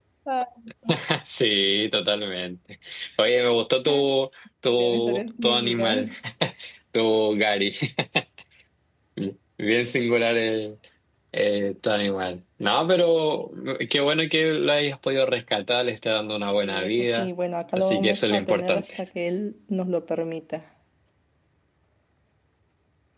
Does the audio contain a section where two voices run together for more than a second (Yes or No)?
Yes